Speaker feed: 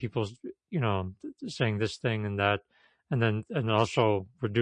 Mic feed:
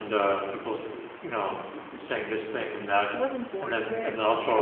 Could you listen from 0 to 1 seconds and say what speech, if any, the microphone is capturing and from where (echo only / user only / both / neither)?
echo only